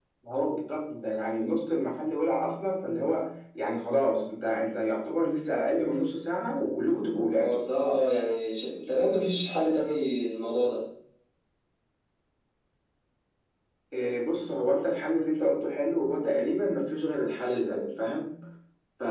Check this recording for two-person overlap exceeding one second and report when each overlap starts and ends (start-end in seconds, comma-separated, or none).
none